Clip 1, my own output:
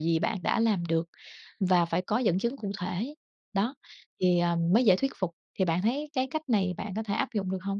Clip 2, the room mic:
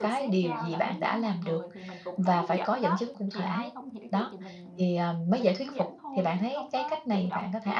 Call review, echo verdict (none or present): present